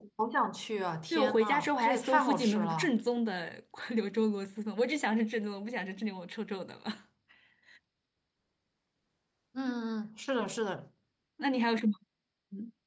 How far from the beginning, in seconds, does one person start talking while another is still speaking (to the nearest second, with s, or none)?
1 s